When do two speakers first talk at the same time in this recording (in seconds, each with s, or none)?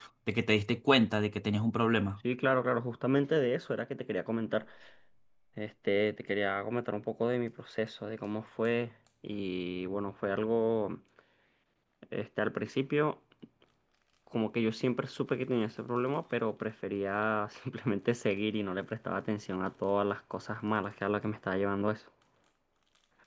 none